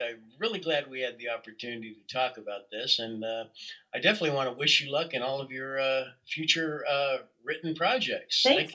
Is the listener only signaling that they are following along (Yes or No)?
No